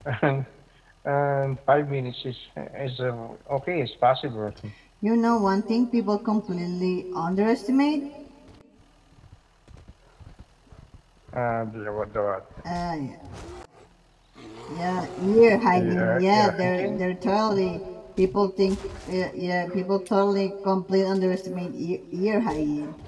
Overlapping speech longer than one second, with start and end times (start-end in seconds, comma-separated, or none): 15.8-17.0